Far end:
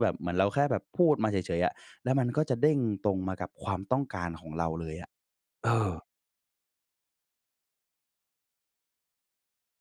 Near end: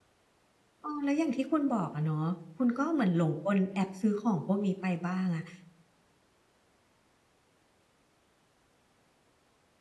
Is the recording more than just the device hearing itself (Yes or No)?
Yes